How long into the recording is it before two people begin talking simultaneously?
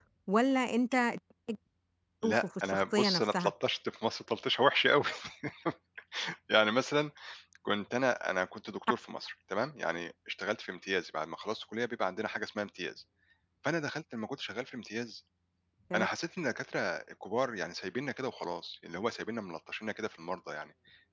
2.2 s

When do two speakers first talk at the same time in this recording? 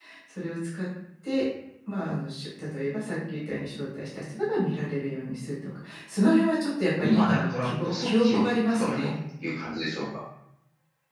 7.0 s

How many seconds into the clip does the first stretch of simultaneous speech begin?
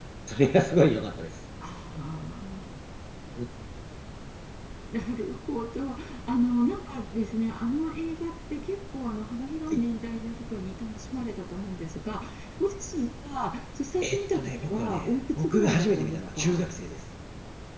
14.0 s

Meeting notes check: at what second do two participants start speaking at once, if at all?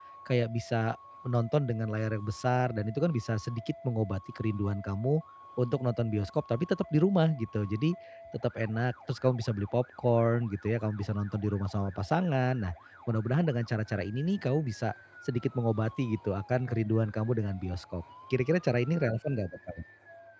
none

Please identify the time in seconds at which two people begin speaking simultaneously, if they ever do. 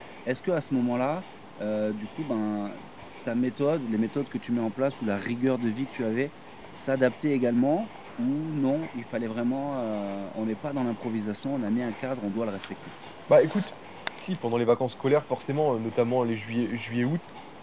none

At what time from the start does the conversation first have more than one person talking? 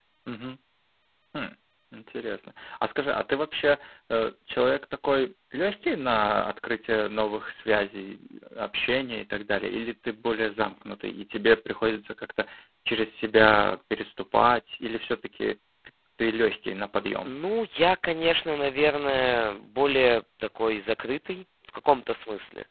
none

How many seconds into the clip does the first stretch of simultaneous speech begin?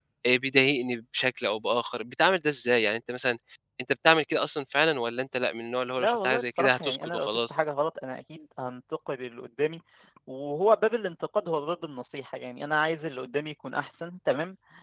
6.0 s

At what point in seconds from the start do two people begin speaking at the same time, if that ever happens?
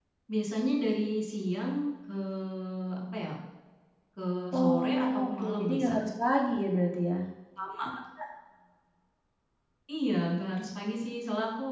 4.5 s

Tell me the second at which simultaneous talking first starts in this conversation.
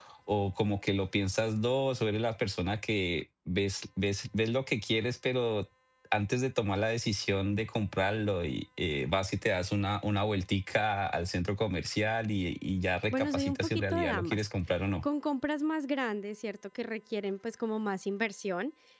13.1 s

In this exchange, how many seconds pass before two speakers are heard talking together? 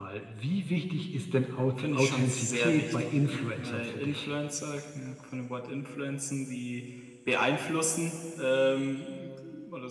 1.8 s

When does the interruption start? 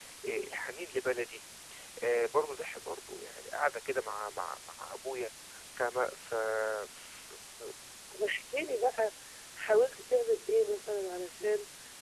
none

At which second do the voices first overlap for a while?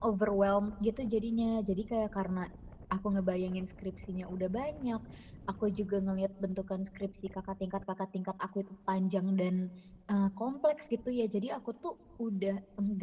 none

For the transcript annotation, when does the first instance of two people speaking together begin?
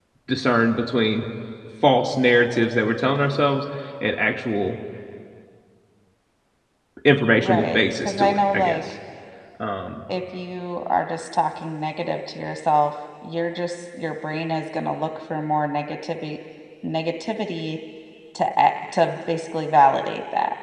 7.4 s

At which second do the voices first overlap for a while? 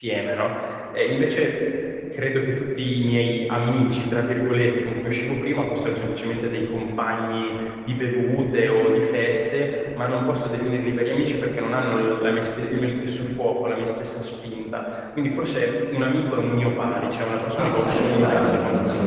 17.6 s

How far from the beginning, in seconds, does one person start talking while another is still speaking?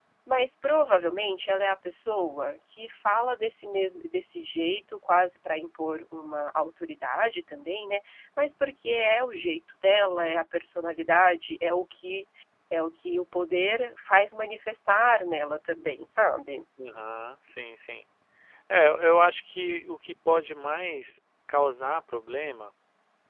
none

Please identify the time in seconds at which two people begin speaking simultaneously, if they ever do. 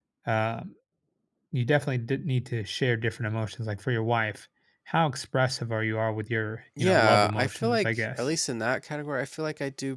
6.8 s

